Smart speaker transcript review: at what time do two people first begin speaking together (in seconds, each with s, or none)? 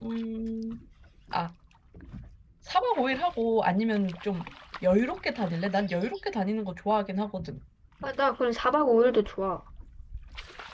none